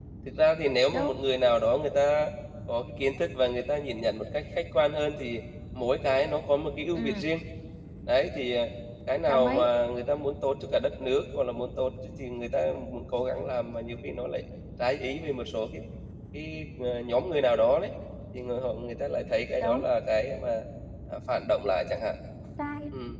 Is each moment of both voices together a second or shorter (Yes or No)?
Yes